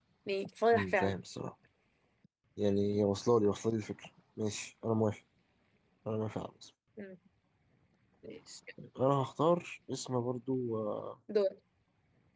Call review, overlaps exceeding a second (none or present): none